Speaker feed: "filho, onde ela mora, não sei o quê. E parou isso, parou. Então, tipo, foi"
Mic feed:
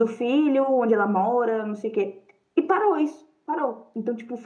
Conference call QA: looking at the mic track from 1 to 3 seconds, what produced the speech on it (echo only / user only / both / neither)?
echo only